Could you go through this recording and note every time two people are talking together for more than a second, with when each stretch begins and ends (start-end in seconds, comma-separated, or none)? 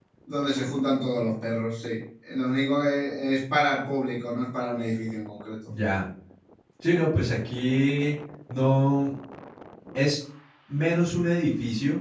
none